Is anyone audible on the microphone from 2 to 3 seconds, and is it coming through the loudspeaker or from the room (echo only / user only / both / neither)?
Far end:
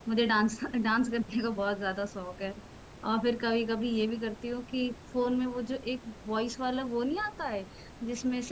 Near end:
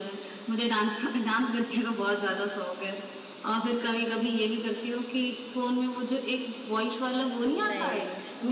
echo only